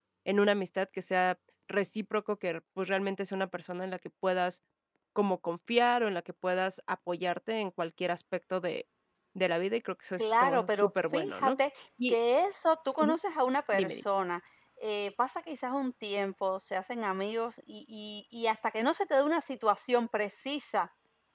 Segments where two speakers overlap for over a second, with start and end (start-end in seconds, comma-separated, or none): 10.2-11.6